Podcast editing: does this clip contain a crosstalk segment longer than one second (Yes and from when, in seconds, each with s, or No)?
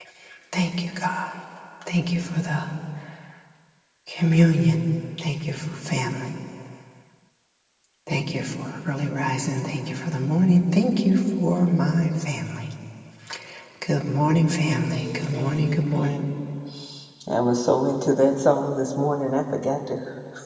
Yes, from 14.9 s